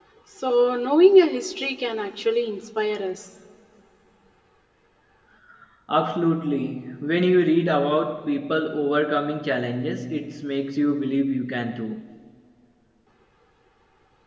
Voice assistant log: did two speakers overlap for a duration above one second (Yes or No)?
No